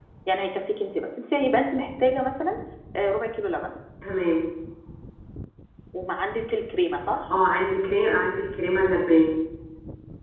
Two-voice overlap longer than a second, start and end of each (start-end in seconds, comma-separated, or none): none